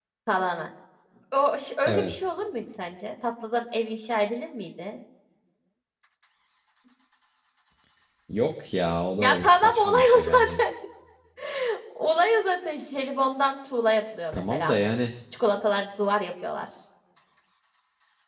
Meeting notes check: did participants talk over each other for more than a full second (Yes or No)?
Yes